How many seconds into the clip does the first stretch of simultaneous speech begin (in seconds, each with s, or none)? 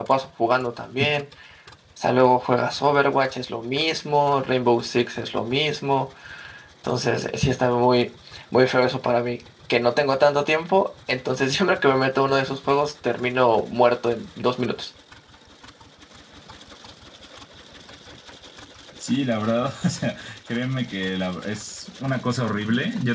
none